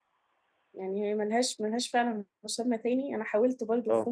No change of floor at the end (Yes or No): Yes